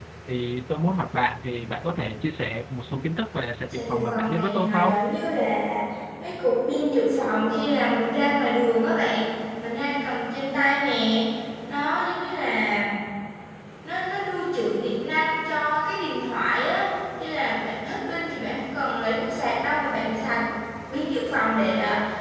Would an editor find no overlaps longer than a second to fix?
No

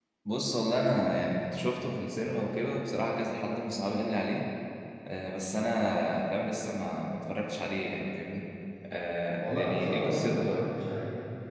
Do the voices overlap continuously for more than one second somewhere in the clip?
Yes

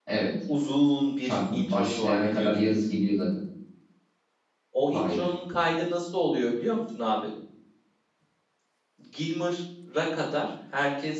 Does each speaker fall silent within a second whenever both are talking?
No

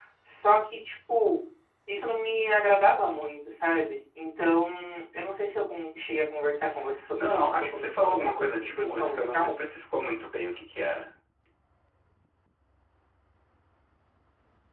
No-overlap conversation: No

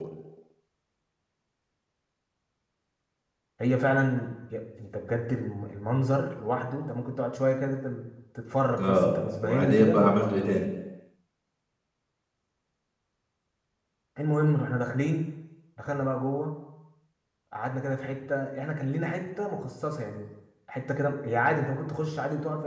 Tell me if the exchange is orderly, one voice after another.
No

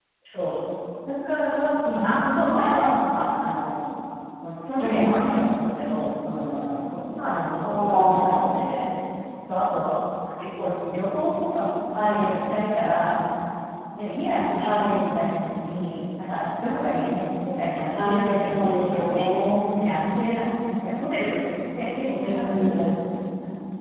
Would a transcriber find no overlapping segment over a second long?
No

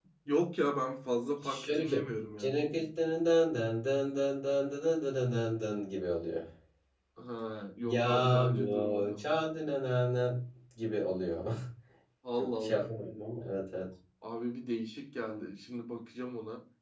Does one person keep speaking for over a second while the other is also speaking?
Yes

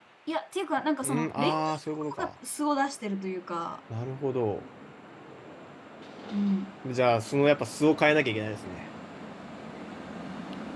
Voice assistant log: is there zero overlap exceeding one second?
No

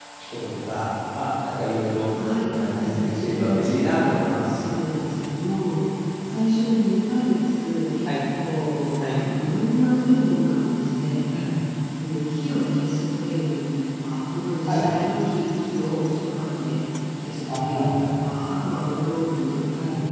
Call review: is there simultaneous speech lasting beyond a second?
Yes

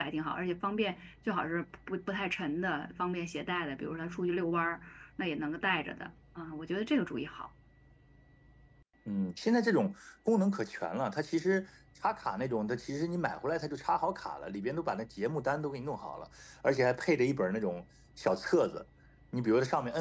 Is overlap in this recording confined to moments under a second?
Yes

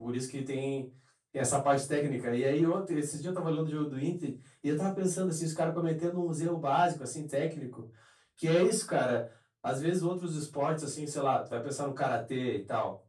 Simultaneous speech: No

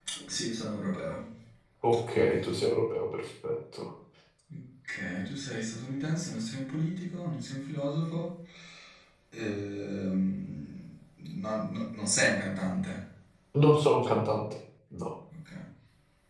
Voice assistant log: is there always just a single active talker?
Yes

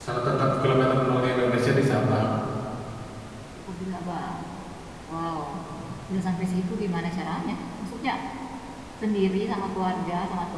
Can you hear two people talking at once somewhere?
No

